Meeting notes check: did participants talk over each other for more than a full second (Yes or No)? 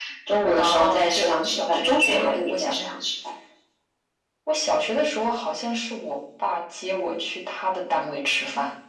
Yes